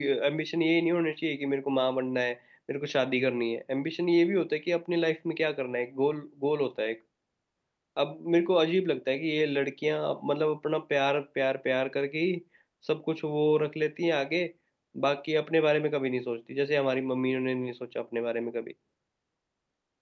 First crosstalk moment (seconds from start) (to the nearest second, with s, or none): none